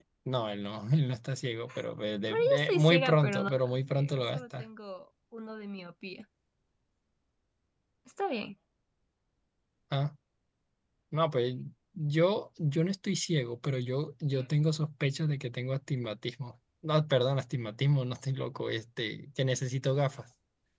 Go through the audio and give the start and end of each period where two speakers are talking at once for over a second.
2.3-4.6

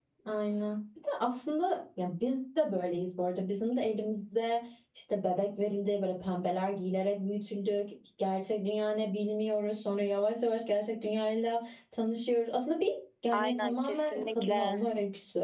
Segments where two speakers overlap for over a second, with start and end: 13.3-14.8

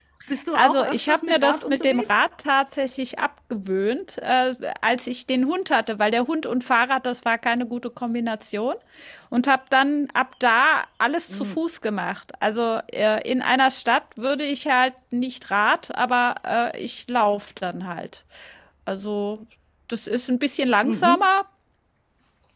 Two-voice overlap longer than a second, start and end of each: 0.6-2.2

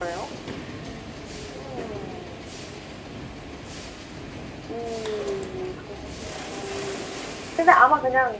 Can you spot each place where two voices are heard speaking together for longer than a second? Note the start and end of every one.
none

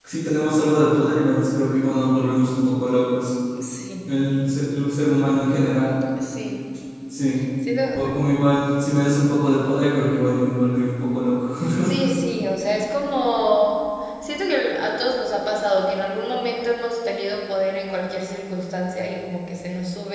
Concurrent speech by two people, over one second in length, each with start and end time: none

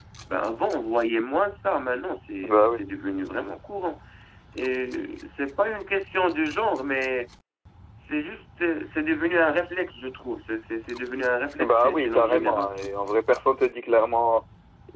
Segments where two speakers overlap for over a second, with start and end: 11.6-12.9

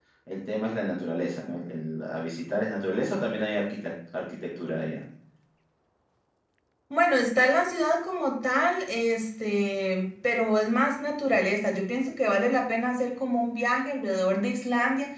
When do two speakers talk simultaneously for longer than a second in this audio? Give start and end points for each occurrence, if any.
none

